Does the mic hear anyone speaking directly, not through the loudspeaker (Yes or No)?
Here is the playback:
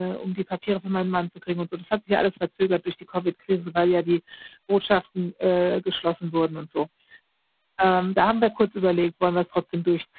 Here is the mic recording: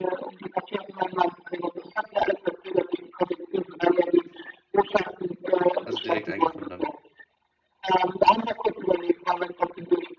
Yes